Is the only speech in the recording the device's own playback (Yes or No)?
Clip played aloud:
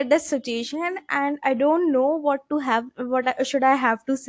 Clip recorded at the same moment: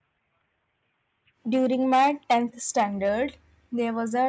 No